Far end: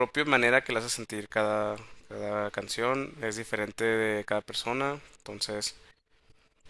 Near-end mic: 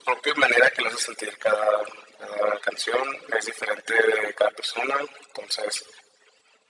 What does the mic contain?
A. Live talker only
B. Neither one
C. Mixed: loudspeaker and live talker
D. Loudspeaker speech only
D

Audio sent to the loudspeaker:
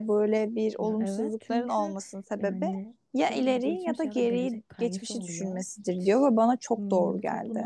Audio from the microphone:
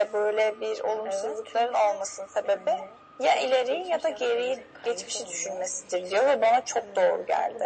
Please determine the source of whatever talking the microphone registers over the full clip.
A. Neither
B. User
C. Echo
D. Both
C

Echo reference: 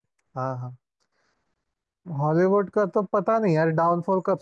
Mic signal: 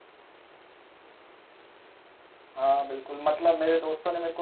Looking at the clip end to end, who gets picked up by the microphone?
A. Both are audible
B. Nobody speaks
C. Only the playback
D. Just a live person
D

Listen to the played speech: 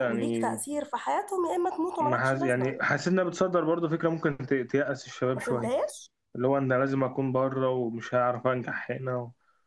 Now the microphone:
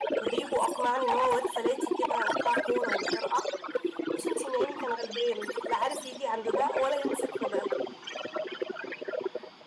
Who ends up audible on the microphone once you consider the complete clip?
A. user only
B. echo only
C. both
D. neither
C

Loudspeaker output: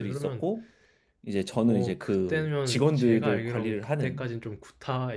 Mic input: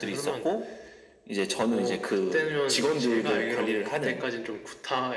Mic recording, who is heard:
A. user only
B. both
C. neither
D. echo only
D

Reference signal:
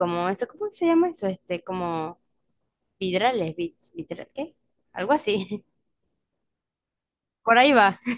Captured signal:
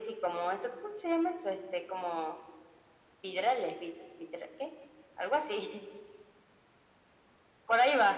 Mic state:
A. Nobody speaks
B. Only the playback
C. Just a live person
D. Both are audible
B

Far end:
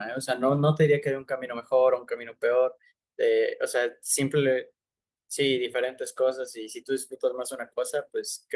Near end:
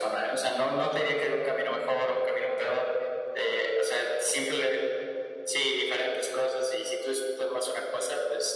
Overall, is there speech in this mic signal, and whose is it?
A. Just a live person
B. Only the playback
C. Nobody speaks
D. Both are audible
B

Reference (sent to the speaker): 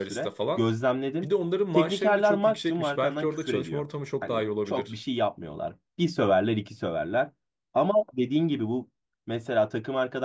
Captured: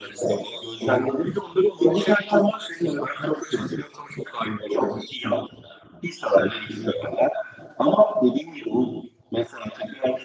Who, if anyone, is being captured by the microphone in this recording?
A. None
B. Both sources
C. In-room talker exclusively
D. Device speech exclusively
D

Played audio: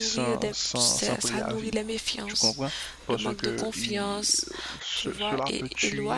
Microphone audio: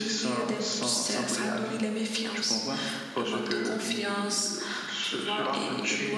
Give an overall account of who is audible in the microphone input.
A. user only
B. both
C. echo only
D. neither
C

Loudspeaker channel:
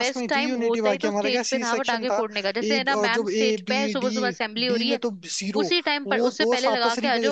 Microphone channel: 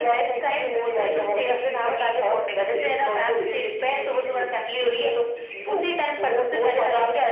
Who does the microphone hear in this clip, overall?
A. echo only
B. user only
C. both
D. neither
A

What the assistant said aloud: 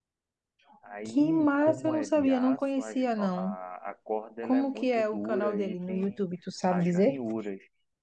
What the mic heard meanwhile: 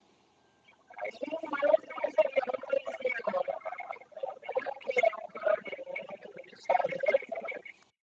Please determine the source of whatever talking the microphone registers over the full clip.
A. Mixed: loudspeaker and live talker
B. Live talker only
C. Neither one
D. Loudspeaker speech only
D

